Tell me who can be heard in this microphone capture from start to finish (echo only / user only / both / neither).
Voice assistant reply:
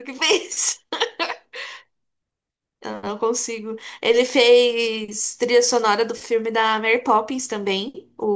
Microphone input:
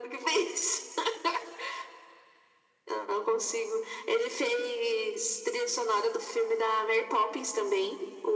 echo only